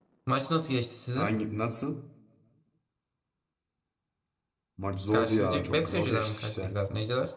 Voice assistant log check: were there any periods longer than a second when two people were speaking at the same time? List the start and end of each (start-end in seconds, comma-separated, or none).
5.1-6.7